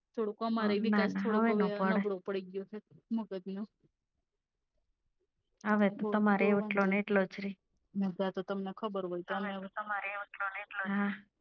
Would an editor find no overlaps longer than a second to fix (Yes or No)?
No